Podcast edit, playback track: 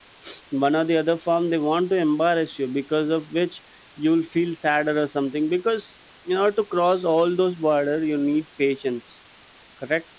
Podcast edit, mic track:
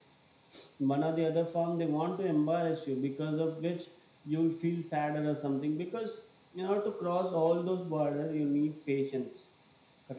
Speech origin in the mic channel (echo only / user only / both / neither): echo only